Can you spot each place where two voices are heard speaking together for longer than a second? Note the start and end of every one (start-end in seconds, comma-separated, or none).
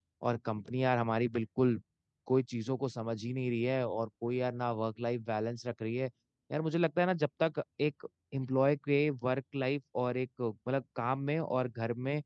none